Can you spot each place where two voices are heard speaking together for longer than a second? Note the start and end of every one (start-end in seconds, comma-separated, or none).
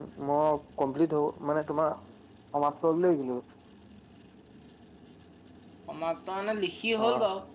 none